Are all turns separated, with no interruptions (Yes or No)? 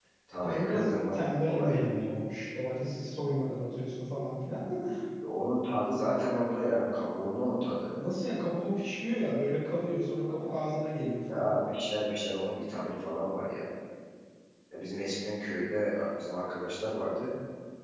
No